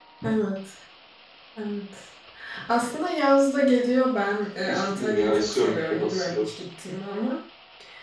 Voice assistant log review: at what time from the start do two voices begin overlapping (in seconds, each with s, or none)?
4.7 s